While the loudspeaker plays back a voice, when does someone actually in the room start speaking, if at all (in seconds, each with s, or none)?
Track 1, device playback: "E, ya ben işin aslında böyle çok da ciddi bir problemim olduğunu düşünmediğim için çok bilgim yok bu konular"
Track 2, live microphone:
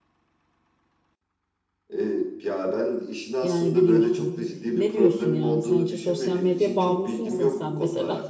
3.4 s